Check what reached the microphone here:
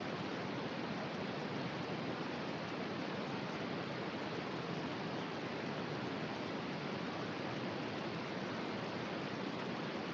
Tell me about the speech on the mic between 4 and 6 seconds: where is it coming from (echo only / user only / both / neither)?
neither